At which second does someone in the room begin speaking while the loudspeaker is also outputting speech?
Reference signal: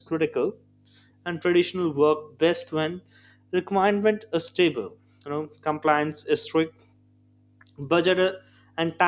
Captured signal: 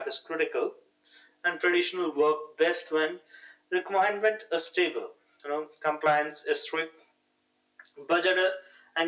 none

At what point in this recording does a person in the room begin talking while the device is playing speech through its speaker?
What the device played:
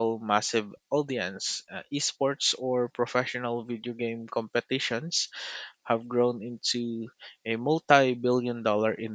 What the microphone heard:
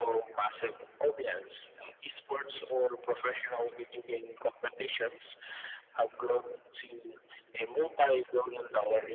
none

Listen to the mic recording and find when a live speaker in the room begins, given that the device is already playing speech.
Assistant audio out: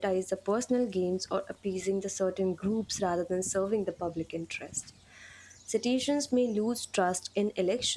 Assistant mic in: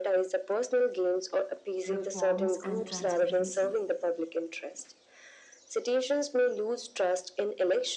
2 s

